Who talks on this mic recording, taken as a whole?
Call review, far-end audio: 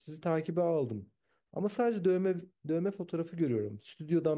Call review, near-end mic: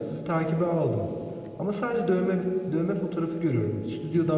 echo only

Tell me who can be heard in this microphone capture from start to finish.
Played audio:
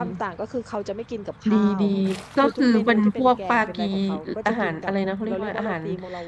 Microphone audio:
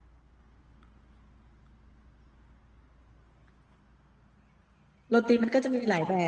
user only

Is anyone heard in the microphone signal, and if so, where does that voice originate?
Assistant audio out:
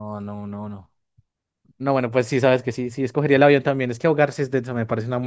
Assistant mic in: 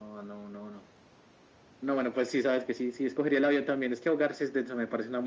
echo only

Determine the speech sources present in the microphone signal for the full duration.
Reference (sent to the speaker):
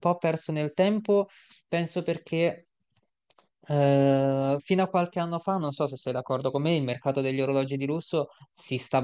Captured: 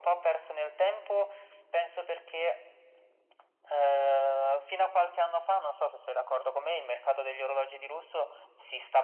echo only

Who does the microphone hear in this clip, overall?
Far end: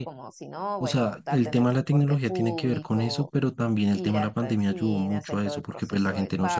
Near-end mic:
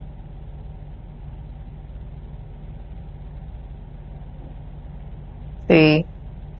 user only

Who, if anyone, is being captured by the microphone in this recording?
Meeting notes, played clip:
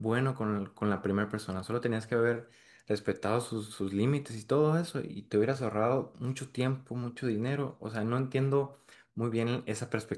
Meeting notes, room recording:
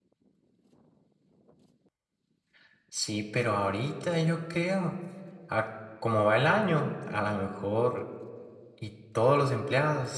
user only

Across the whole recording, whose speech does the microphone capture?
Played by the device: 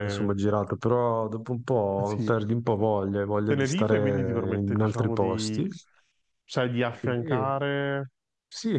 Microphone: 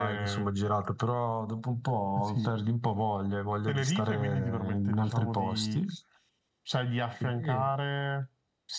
echo only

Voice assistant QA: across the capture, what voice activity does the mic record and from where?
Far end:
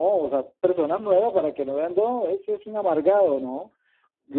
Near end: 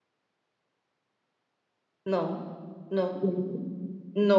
user only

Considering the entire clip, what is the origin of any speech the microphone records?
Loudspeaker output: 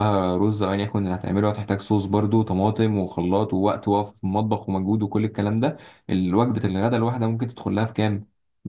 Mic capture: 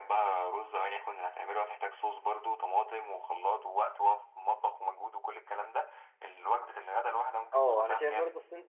both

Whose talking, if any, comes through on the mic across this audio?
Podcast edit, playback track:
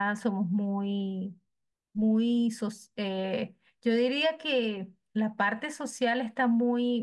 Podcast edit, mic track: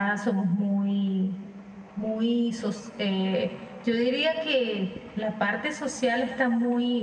echo only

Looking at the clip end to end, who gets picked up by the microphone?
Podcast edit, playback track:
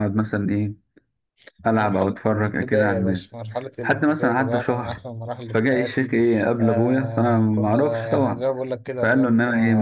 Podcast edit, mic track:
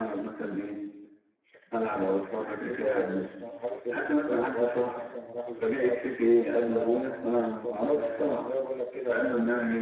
echo only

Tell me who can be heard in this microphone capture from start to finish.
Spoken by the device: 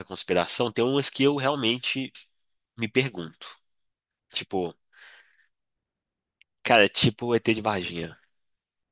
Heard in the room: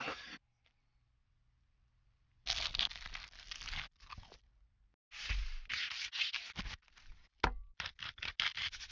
neither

